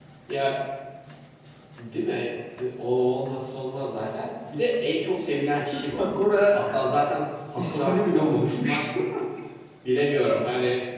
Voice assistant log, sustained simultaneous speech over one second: present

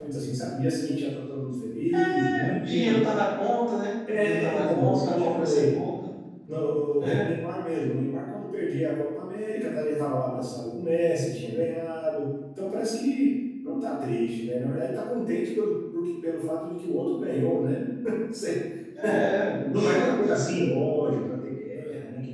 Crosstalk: present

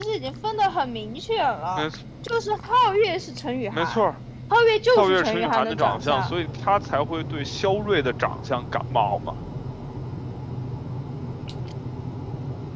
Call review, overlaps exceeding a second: present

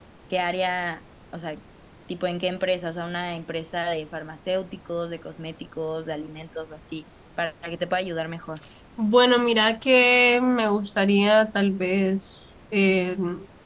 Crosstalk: none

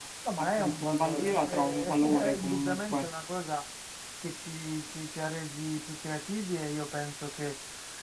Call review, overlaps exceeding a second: present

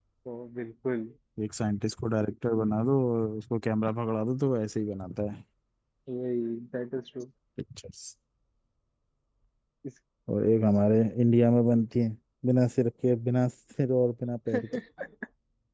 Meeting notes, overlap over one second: none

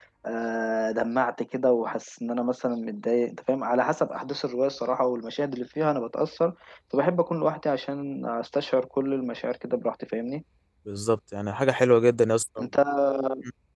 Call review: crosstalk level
none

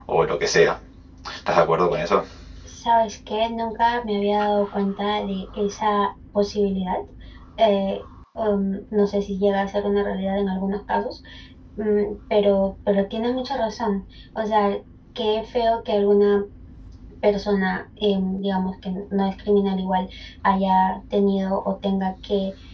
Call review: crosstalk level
none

